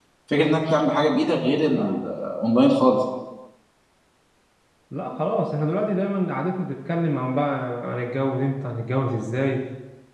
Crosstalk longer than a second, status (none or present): none